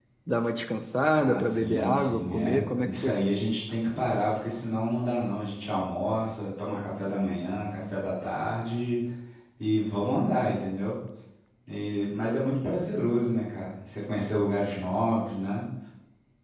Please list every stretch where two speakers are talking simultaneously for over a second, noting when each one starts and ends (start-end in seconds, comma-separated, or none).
1.1-3.2